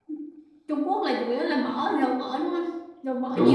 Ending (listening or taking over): taking over